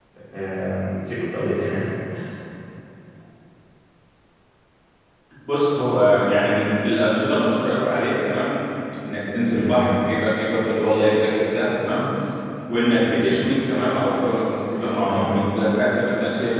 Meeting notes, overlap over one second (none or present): none